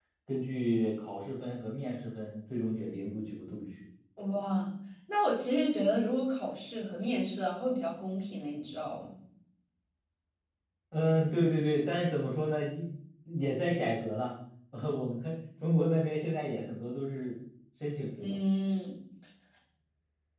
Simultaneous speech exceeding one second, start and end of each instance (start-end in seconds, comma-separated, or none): none